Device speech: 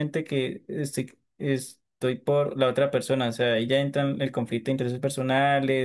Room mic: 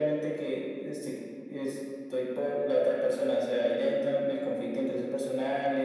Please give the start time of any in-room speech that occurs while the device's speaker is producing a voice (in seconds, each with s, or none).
none